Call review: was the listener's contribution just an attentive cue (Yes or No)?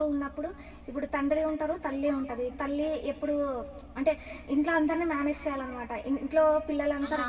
Yes